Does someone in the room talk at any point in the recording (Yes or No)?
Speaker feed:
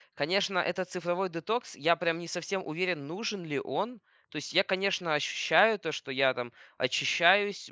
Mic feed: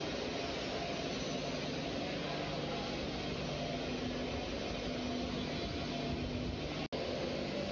No